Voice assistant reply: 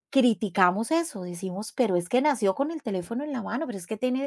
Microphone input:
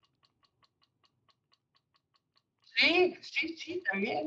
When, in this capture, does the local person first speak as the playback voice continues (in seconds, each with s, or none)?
2.6 s